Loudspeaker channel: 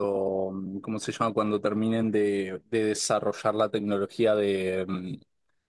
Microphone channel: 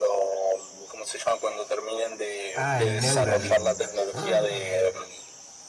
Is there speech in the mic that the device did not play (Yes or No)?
Yes